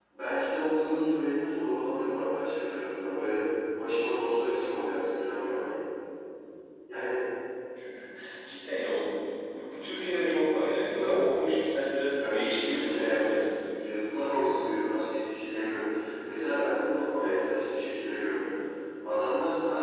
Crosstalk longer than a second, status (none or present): present